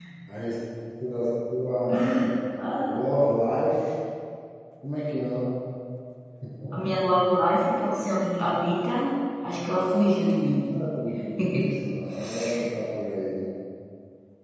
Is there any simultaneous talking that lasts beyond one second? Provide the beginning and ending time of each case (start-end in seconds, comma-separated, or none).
none